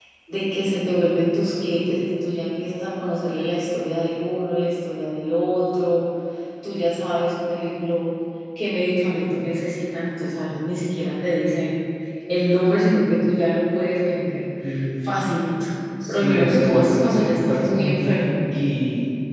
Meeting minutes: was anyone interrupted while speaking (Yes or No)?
Yes